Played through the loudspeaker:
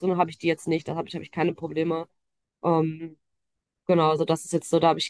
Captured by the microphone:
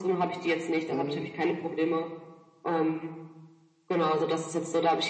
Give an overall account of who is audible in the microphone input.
both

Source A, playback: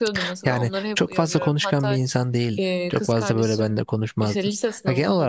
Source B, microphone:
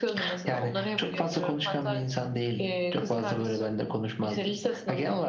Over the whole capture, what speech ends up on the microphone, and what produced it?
echo only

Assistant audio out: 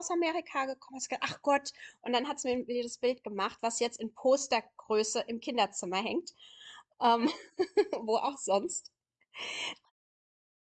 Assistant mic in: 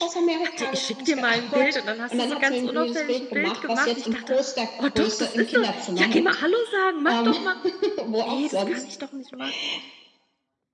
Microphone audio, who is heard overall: both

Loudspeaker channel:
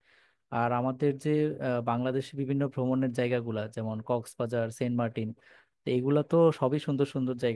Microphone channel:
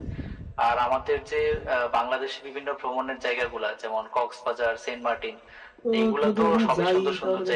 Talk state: both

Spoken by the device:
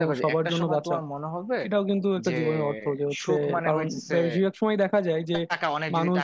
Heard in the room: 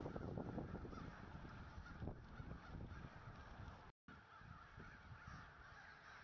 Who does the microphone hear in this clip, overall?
neither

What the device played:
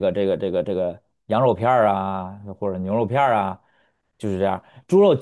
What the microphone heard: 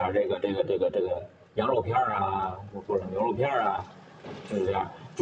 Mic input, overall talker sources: echo only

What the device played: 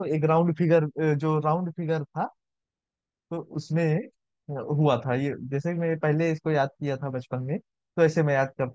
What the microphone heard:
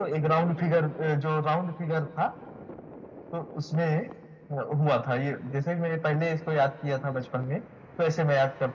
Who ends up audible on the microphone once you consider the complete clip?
echo only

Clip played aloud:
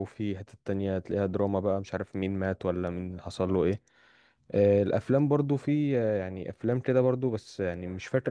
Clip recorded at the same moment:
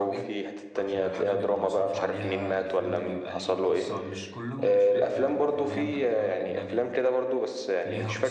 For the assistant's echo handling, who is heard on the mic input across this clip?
both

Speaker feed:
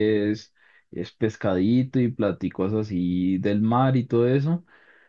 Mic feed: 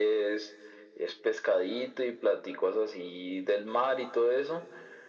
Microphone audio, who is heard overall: echo only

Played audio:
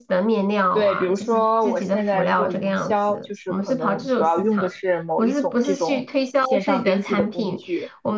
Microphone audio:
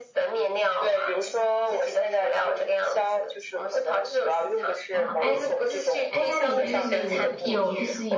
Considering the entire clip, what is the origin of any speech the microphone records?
both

